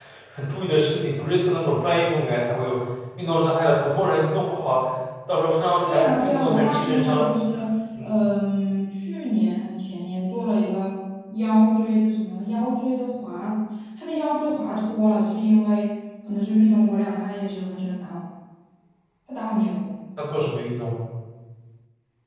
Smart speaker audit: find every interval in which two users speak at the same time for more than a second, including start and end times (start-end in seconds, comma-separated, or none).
5.8-7.3